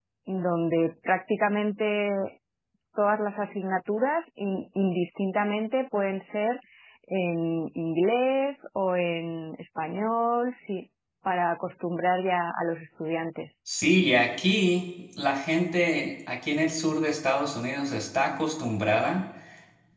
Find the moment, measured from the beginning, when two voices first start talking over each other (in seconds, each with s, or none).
none